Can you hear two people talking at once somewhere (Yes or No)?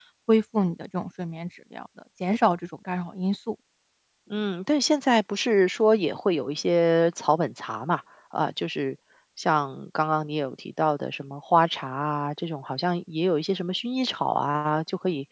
No